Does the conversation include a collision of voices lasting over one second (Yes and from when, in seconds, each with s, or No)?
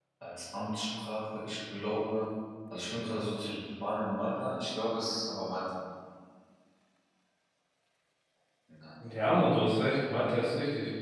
No